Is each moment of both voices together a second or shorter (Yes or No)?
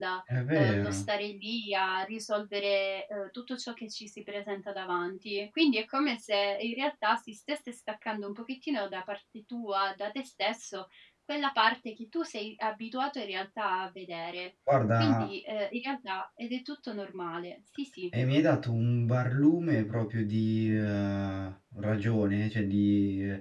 Yes